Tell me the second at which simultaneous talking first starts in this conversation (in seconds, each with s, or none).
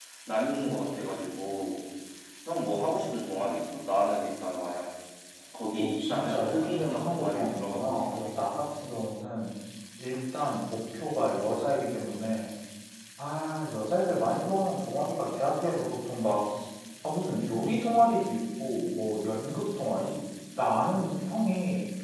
5.8 s